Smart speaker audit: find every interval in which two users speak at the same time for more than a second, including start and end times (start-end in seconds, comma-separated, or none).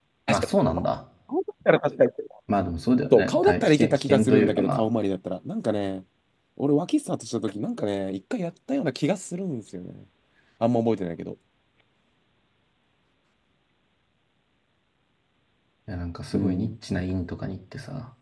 3.1-4.8